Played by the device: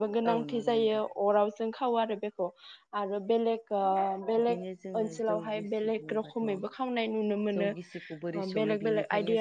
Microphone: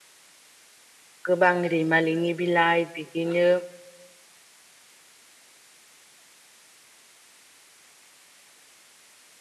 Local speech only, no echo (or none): गोबां रैमालिनि बिलाइ बिदिनो